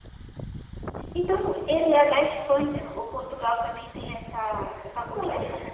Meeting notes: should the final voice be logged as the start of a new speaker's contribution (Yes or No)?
Yes